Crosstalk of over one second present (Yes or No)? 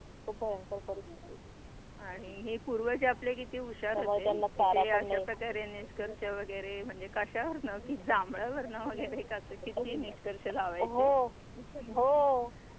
Yes